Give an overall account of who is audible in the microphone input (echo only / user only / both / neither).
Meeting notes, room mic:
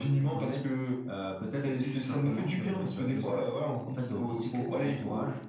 echo only